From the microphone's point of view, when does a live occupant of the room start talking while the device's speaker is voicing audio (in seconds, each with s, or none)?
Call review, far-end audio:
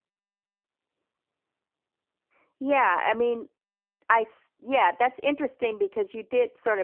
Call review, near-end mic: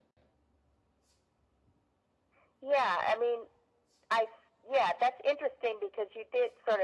none